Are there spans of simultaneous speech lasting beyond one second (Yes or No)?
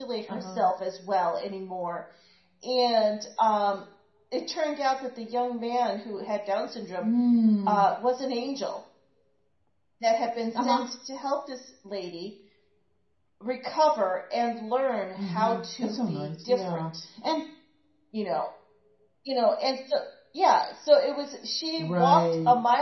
Yes